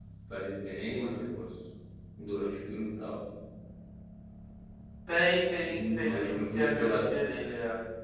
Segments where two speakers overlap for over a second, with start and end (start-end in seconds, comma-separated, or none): 5.6-7.1